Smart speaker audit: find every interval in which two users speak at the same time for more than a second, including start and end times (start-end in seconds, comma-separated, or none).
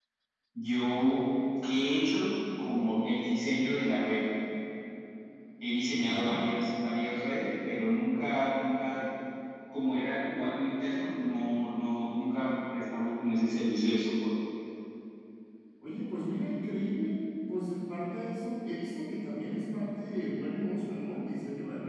none